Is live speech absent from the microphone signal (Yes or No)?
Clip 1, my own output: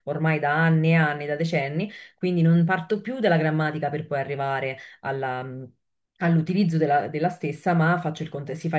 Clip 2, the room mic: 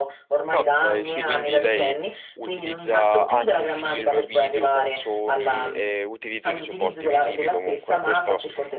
No